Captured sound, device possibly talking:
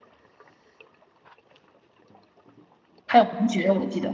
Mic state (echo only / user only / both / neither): user only